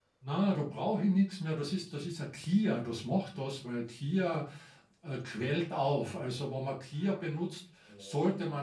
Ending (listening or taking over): listening